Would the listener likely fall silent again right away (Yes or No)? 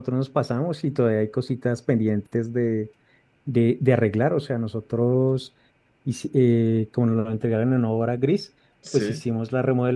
Yes